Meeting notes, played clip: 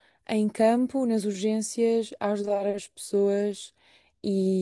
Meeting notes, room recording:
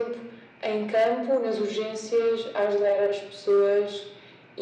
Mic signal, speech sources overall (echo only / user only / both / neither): echo only